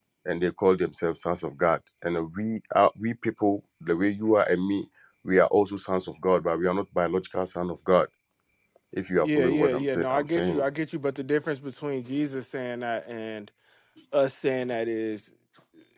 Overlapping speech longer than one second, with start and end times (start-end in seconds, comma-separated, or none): 9.2-10.6